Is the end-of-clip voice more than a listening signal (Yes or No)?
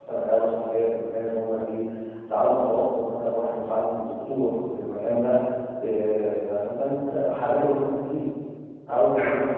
No